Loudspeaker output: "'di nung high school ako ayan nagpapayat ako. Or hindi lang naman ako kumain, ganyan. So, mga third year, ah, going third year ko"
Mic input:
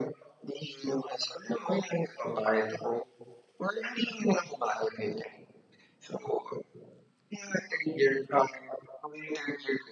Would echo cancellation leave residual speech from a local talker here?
No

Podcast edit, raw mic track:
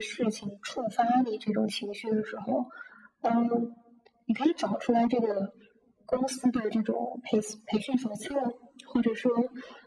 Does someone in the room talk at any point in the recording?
No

